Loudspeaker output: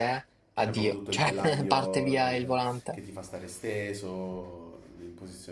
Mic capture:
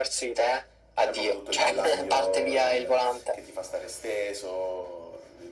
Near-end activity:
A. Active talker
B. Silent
A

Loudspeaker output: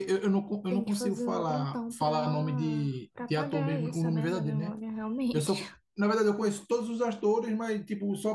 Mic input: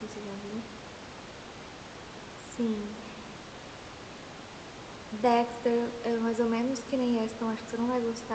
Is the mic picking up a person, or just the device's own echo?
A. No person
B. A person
B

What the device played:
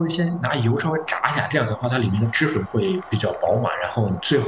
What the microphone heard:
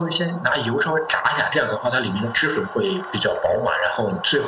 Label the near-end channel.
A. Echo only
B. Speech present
A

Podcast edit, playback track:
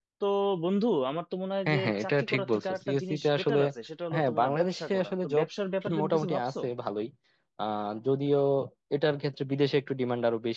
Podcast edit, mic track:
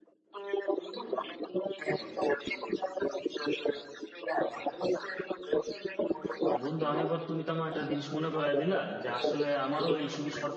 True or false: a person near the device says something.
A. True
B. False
A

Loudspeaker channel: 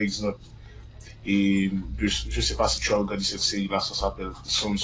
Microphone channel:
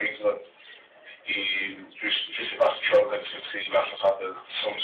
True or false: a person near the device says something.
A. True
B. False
B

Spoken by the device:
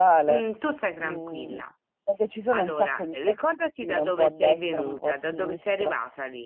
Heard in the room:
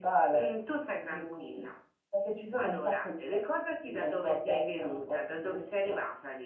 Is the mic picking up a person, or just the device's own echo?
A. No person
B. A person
A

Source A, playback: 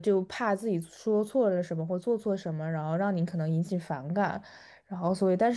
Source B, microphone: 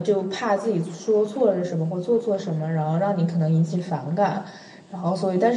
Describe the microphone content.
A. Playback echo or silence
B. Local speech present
A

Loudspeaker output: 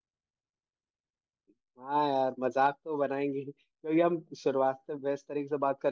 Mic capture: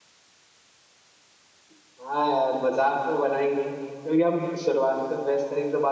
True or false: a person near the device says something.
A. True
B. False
B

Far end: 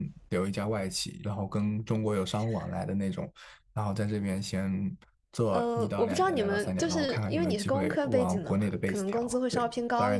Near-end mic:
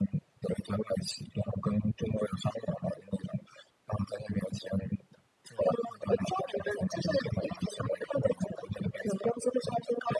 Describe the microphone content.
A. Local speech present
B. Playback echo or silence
B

